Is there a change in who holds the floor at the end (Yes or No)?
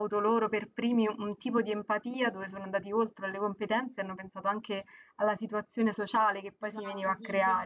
Yes